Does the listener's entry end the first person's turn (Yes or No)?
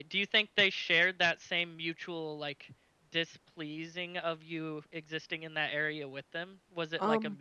No